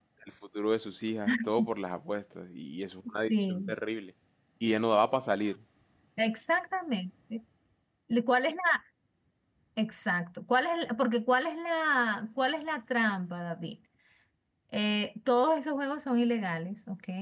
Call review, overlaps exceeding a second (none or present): none